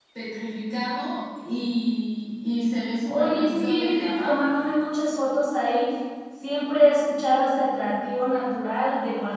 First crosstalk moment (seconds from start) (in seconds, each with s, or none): 3.0 s